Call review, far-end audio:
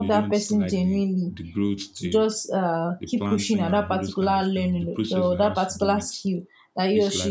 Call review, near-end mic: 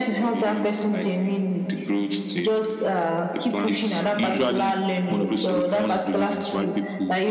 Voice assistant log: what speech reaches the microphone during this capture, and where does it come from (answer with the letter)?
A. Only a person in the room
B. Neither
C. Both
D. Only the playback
C